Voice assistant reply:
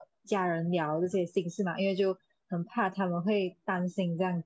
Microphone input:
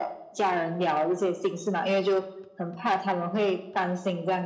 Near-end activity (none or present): none